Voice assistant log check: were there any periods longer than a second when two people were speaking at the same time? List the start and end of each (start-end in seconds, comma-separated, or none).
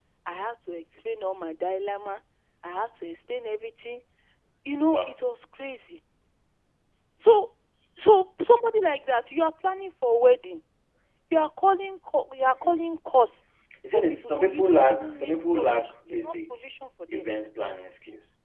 13.9-16.5